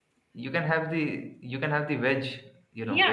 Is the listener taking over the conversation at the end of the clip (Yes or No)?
Yes